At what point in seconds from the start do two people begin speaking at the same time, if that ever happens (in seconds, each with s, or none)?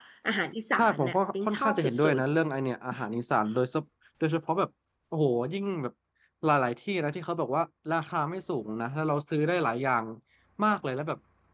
0.8 s